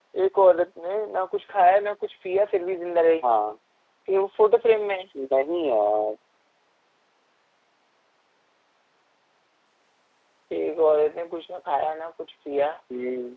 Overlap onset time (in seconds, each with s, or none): none